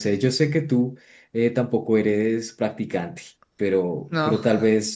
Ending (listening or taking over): listening